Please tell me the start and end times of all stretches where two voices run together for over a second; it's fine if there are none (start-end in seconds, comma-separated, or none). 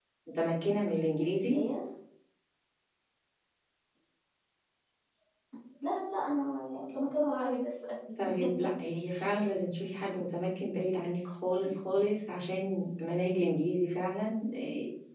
none